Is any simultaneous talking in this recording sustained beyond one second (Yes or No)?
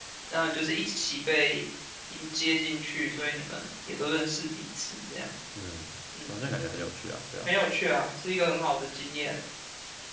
No